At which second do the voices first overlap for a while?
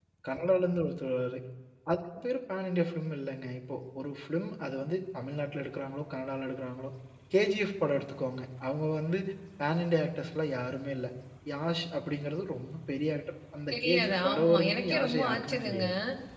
14 s

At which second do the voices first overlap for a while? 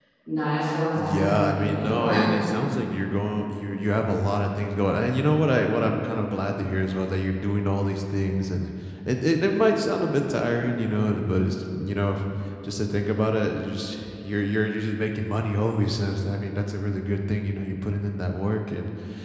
1 s

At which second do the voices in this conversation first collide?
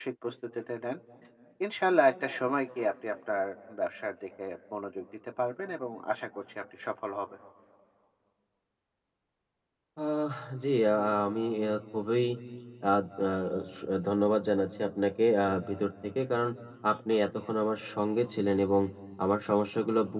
none

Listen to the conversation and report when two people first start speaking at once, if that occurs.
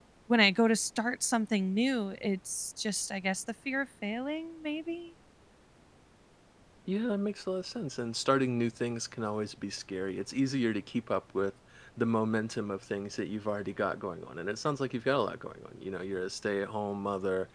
none

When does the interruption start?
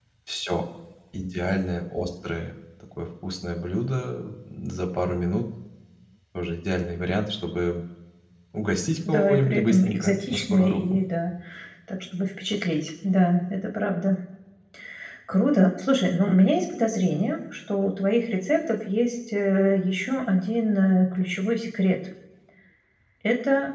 9 s

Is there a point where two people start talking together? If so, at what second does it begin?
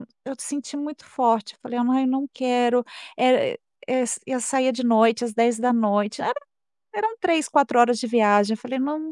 none

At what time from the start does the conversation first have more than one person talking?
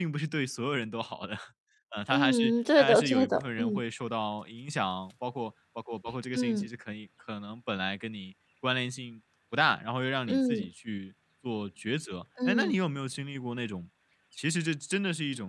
2 s

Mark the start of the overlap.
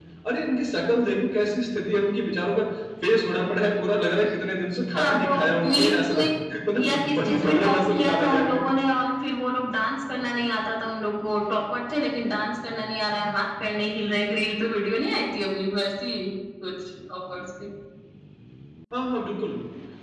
5 s

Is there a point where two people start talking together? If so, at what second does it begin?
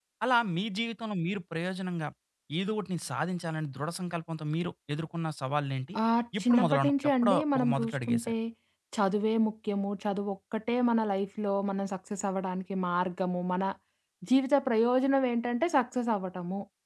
6 s

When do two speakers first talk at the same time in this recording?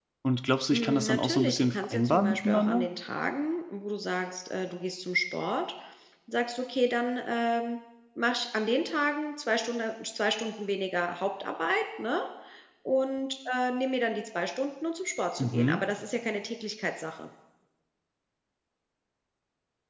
1 s

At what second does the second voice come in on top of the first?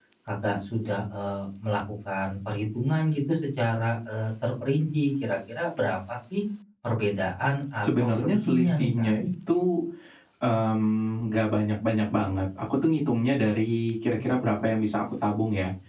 8 s

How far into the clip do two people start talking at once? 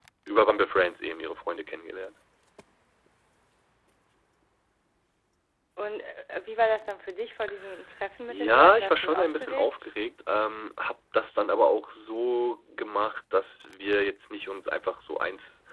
8 s

